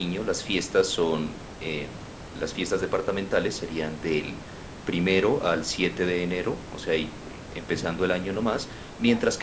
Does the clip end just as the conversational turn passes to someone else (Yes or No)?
No